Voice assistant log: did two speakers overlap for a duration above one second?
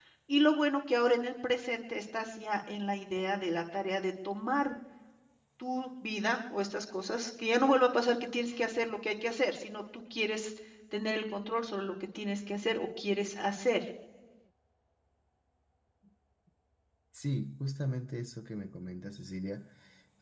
No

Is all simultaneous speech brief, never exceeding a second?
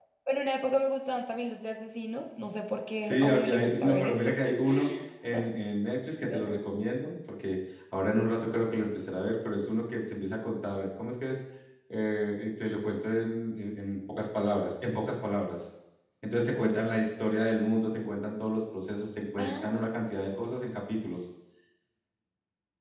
No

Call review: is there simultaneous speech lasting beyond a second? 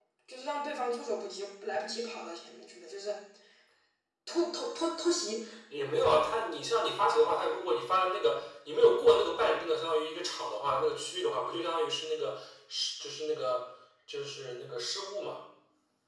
No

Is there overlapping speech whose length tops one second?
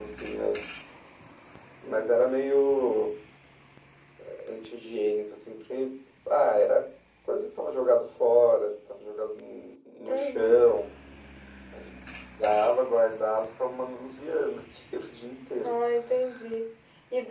No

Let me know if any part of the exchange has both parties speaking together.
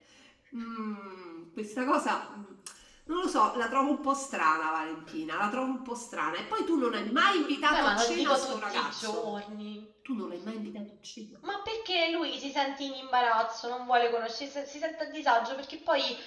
Yes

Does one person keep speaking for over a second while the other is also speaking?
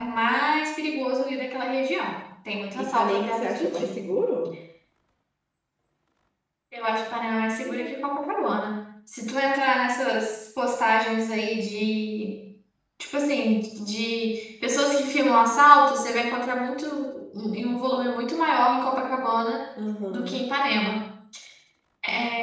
Yes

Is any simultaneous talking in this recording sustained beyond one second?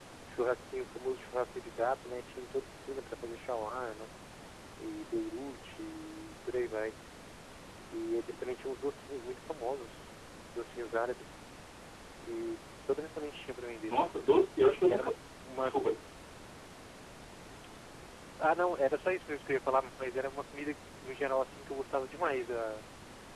No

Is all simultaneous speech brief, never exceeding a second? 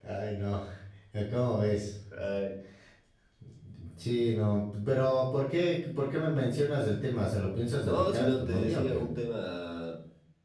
No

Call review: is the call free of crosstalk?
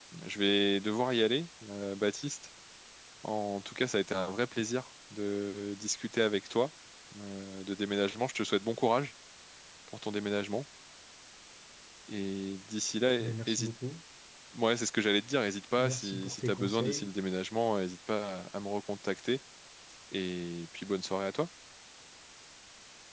No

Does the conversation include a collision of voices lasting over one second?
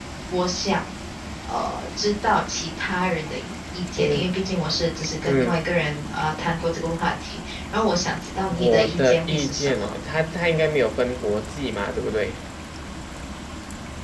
Yes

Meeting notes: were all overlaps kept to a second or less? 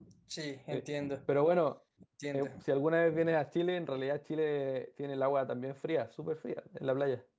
Yes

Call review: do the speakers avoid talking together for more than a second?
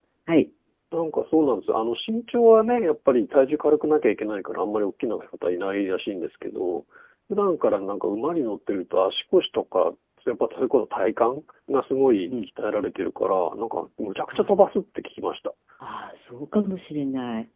Yes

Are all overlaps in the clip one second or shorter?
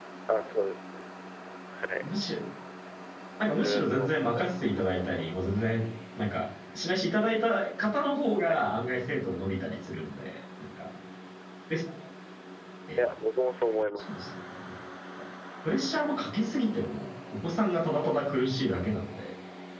No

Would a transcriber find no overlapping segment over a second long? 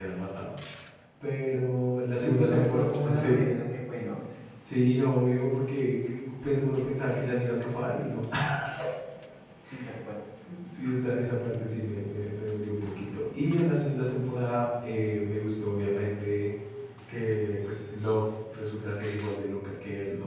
No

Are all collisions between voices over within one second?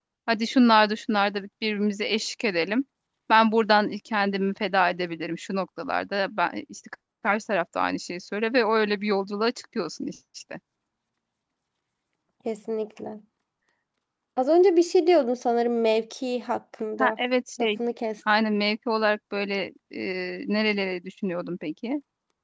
Yes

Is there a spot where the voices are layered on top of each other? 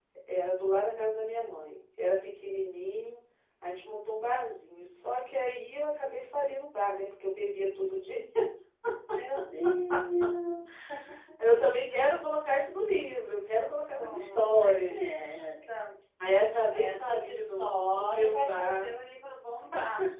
Yes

